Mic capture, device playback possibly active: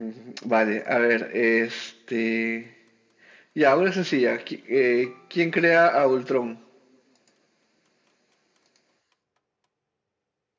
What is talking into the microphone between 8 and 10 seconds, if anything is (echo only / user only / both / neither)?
neither